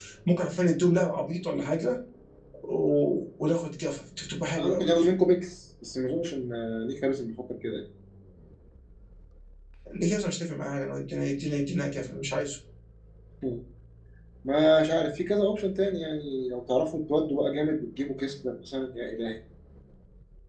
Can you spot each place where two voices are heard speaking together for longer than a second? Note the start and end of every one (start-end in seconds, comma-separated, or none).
none